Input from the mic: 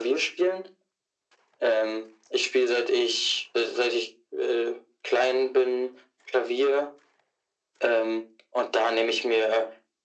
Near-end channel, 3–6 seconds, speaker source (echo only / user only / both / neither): echo only